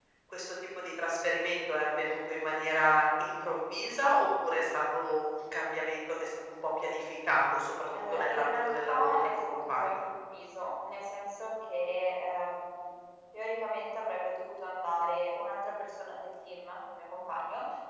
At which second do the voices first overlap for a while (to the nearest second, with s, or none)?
8 s